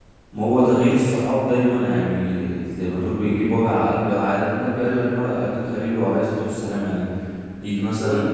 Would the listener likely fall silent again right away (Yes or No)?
Yes